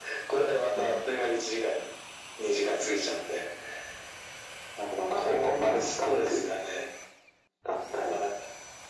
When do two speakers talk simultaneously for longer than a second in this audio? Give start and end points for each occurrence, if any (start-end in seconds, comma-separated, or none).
5.1-6.4